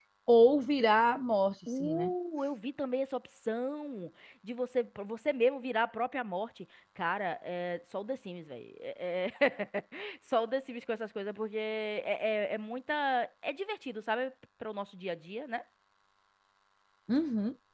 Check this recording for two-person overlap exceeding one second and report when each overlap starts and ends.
none

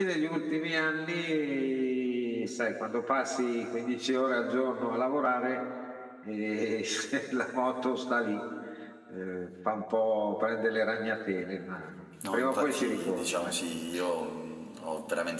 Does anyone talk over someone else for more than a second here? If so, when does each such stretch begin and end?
12.3-13.5

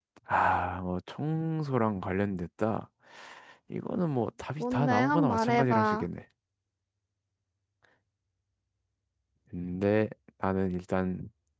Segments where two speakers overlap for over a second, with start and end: 4.6-6.0

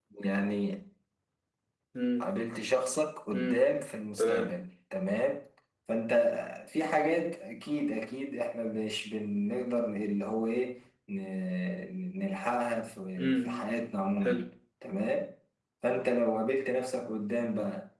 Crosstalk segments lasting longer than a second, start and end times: none

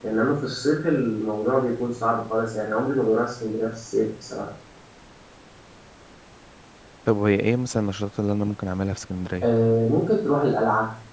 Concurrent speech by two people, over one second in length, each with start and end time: none

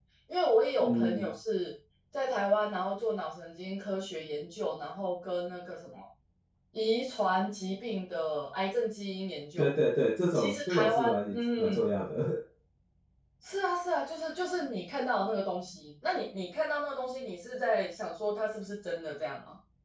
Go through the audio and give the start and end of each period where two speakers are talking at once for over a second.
10.3-11.9

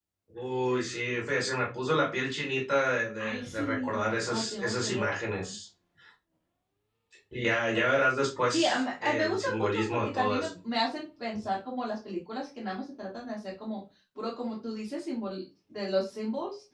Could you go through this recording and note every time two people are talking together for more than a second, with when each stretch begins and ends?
3.2-5.0, 8.5-10.5

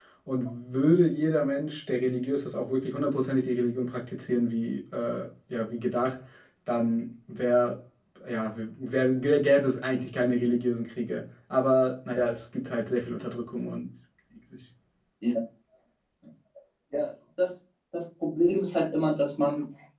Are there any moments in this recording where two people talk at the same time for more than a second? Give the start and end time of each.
none

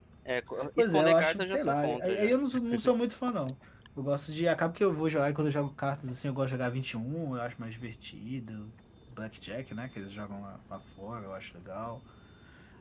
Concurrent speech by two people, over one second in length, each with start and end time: 0.8-2.4

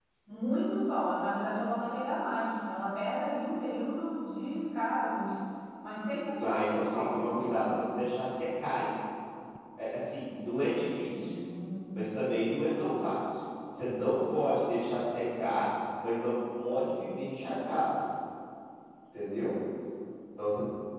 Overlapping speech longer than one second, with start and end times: 6.4-7.7

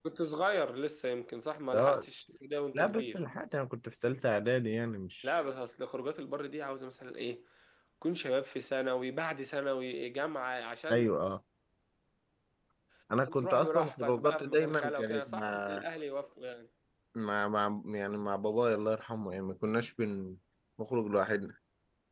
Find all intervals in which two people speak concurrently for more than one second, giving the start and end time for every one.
13.2-15.8

